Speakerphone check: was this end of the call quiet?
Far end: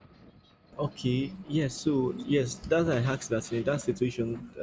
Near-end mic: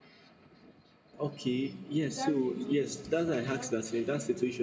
No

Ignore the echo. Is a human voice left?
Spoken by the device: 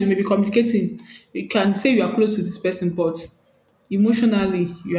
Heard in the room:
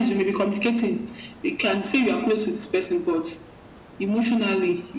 No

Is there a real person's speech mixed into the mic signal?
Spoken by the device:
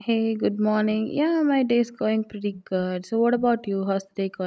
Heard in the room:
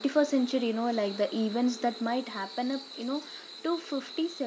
Yes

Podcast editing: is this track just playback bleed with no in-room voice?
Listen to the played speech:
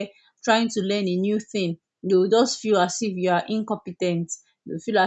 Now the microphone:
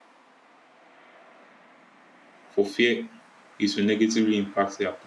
No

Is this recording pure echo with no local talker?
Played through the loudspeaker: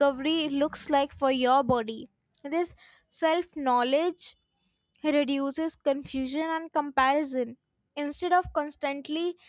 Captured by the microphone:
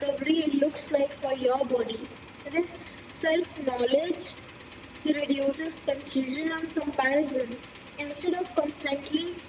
Yes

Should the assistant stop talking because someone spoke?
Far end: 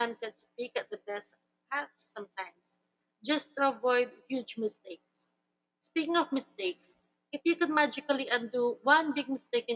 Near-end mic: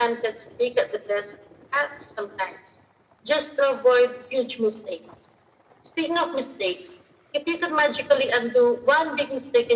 No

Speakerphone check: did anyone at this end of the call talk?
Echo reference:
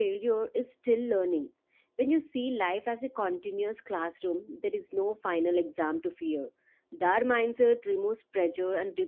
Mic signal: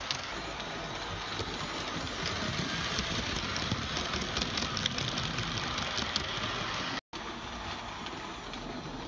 No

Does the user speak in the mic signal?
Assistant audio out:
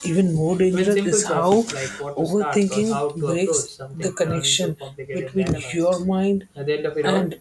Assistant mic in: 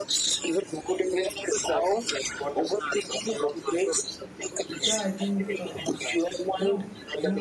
Yes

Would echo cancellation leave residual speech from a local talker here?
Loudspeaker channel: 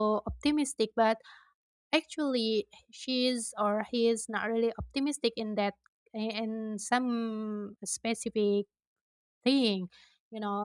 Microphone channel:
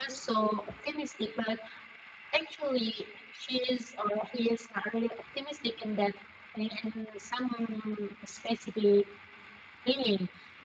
No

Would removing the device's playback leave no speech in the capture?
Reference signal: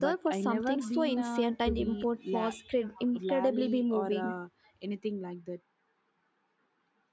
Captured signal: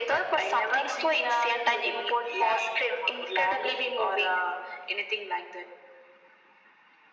Yes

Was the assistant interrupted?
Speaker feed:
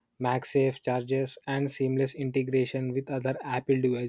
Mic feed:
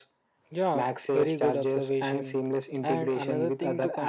Yes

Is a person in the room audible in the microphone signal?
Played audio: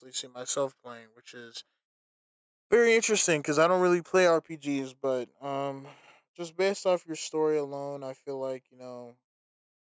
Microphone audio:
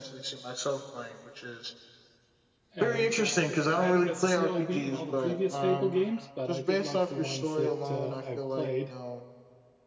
Yes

